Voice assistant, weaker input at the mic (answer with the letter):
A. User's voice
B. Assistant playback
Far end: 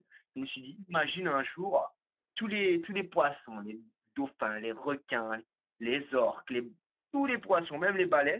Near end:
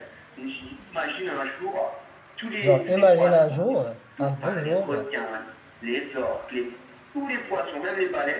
B